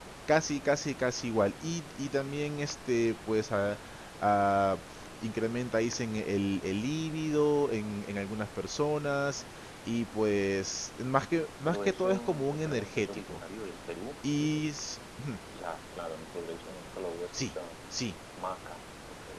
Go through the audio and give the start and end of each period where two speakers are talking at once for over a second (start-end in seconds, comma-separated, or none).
11.7-13.4